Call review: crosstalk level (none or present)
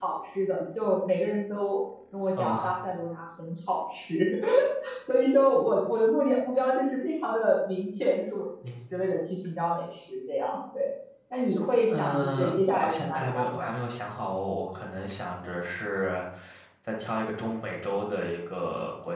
present